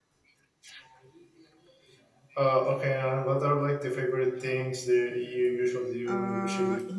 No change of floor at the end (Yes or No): No